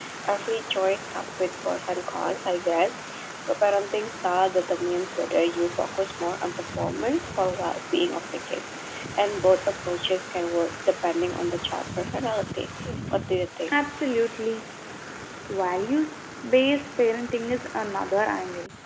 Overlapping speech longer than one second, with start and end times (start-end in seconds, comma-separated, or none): none